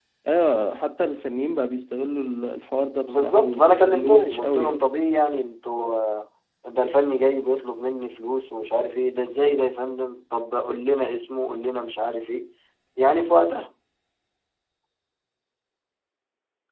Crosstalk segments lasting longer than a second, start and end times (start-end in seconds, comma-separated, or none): 3.1-4.8